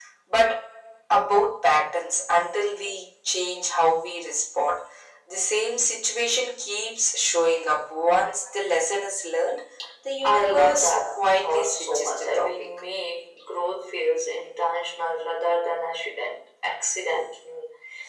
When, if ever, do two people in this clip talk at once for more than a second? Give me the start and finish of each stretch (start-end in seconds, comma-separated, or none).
10.2-12.7